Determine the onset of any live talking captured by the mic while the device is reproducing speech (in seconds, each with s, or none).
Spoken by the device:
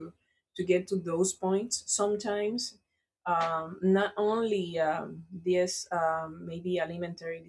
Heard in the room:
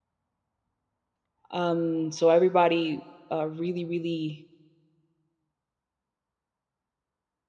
1.5 s